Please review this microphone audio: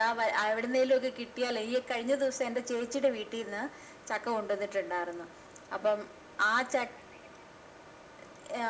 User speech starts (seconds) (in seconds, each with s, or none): none